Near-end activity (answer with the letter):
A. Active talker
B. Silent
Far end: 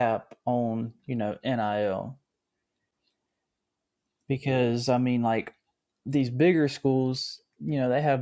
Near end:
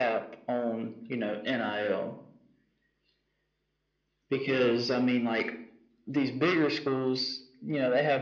B